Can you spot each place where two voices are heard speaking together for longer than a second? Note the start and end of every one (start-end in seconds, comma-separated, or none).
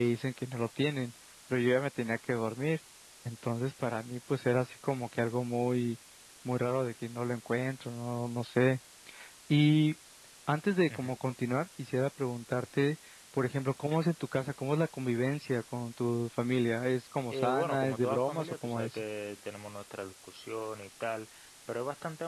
17.3-19.0